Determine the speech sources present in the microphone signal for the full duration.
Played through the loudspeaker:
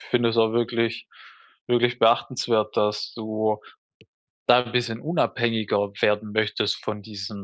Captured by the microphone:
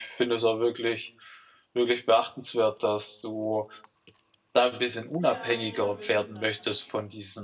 both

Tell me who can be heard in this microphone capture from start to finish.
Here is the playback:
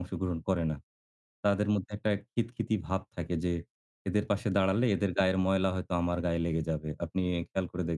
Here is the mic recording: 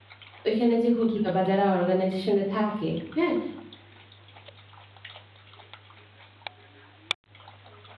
user only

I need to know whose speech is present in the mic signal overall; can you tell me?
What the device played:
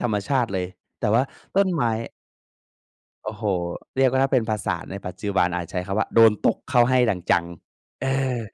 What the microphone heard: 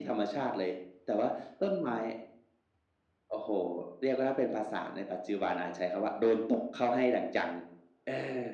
echo only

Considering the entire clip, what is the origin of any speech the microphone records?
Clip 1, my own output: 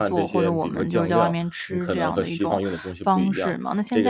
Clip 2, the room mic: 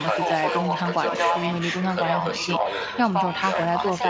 both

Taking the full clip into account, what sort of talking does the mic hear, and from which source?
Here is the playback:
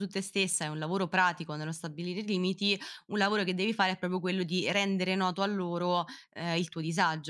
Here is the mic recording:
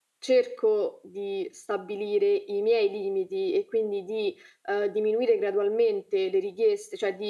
user only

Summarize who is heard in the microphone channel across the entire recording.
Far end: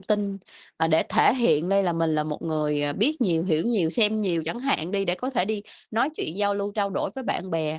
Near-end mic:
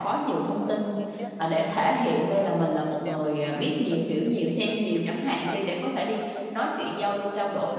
both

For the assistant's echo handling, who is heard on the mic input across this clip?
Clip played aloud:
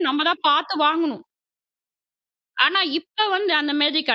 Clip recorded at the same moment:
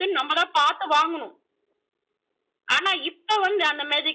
echo only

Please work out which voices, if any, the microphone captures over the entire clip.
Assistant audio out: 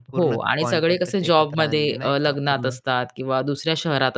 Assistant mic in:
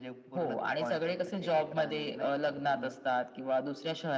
echo only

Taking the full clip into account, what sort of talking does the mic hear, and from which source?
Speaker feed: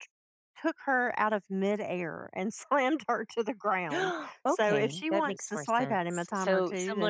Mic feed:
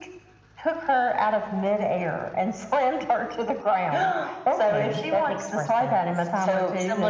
echo only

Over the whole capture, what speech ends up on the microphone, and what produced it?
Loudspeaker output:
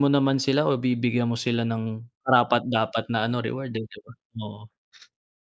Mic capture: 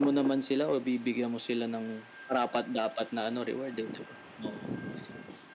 echo only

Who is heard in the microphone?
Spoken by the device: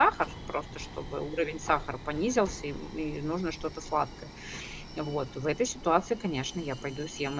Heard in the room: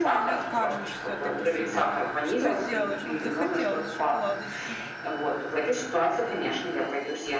both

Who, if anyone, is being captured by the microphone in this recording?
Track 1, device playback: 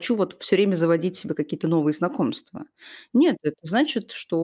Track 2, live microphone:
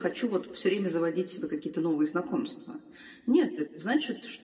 echo only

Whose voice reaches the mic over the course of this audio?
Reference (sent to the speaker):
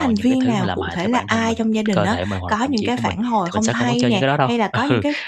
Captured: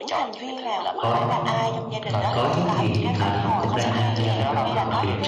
both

